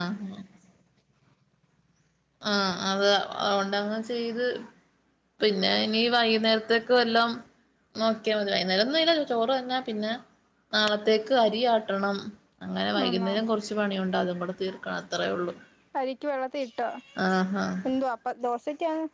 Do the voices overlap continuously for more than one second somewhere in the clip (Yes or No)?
No